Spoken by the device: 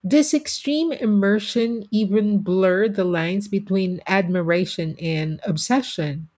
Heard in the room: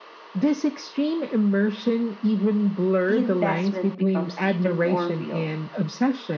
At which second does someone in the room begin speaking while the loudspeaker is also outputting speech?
3.0 s

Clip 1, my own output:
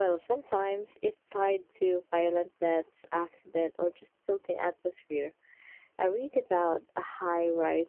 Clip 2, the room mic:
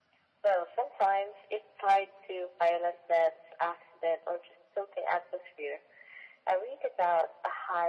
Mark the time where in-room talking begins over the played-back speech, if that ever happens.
none

